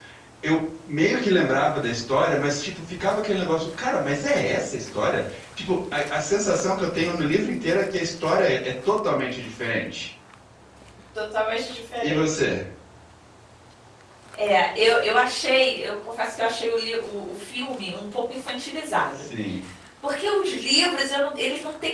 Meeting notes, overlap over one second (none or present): none